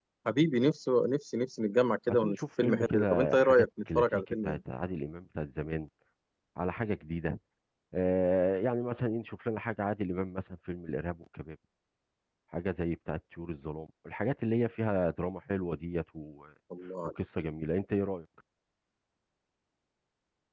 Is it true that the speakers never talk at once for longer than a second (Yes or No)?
No